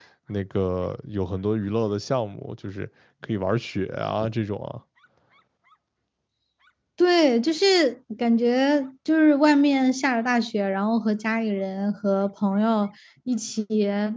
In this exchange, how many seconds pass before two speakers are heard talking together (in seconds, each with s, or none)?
none